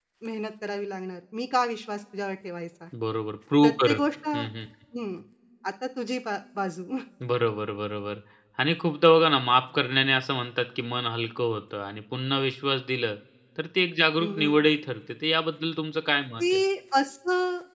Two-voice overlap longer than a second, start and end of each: none

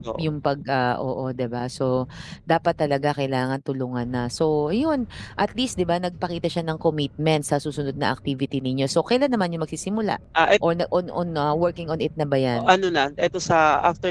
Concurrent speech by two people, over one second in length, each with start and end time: none

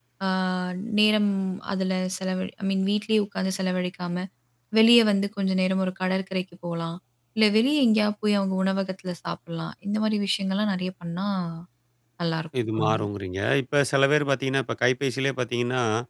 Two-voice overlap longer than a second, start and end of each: none

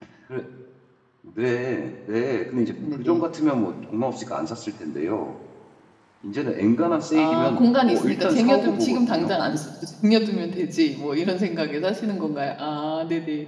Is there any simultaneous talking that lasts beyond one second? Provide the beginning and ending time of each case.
7.1-9.4

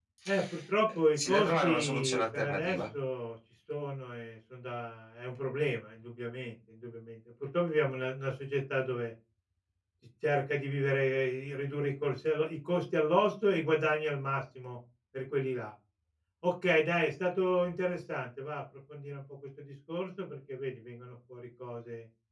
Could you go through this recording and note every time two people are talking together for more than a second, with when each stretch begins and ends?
0.9-2.8

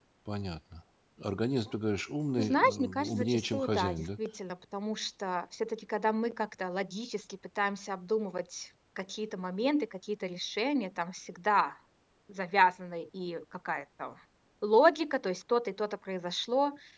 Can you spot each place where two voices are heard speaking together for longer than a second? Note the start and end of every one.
2.4-4.1

